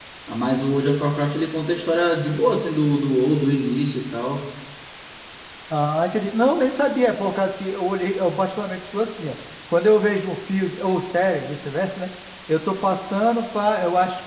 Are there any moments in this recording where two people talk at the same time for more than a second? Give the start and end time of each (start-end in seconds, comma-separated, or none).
none